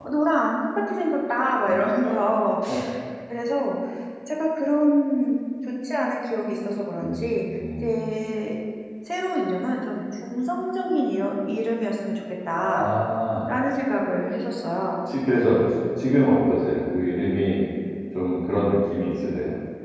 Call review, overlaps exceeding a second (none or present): none